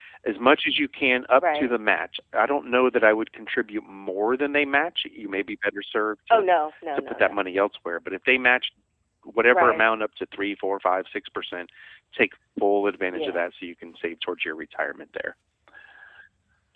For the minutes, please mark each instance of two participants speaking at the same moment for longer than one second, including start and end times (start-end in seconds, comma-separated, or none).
none